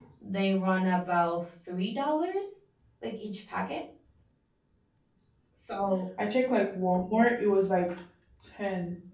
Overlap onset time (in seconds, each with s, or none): none